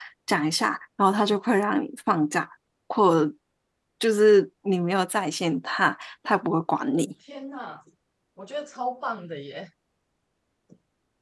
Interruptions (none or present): none